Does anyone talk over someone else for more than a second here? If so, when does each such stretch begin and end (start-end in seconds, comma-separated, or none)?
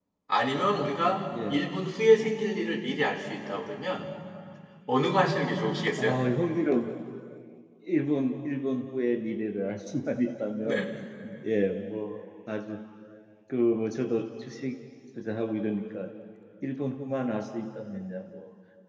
none